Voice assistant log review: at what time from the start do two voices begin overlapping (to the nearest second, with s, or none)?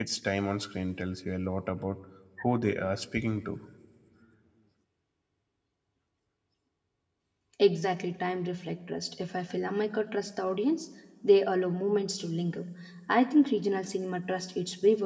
none